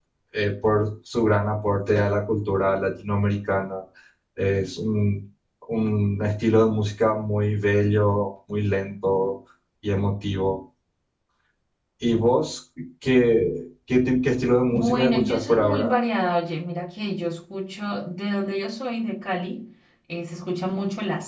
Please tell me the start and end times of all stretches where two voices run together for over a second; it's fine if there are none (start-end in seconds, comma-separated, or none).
14.7-15.9